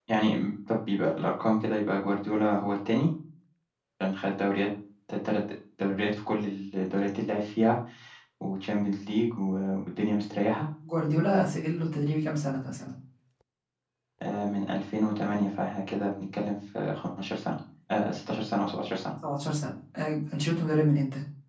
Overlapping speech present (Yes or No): No